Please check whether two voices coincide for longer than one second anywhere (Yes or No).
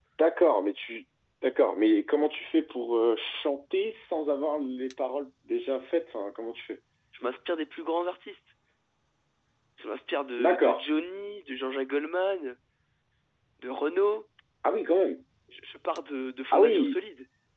No